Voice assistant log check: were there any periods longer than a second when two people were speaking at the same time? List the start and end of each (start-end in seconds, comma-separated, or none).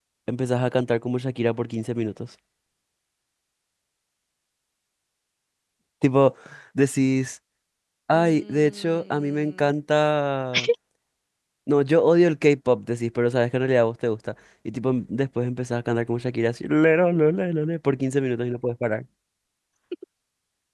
8.1-9.7